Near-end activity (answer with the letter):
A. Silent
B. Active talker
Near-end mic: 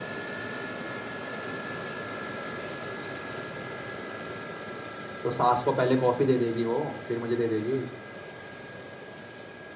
B